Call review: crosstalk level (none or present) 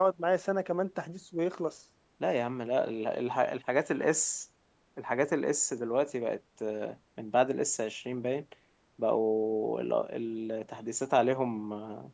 none